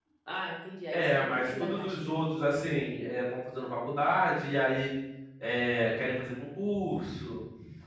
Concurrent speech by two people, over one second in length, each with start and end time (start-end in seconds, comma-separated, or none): 0.9-2.2